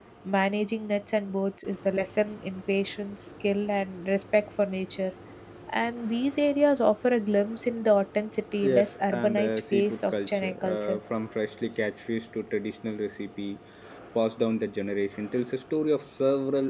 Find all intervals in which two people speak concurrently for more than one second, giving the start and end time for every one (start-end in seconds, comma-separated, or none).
8.6-11.0